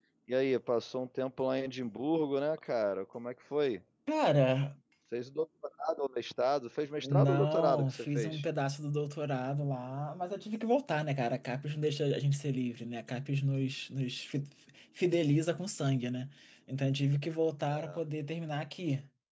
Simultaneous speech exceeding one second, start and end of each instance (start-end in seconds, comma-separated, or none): 7.0-8.4